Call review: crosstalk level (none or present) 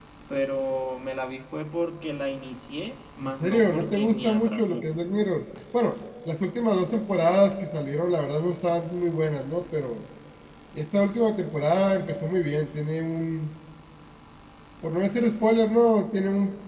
present